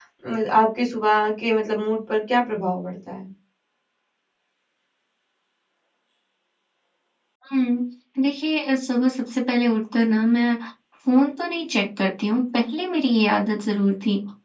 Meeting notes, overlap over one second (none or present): none